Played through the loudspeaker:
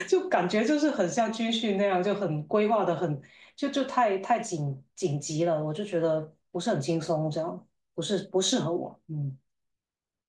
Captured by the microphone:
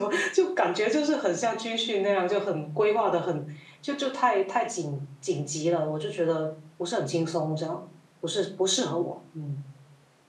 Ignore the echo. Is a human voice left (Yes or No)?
No